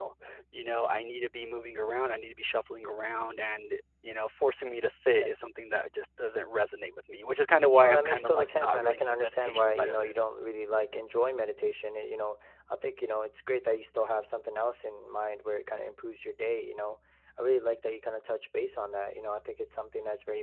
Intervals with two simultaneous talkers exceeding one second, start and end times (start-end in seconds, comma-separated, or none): 7.8-10.1